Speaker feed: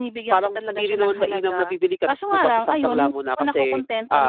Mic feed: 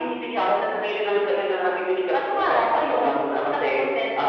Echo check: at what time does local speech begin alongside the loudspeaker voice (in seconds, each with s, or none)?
none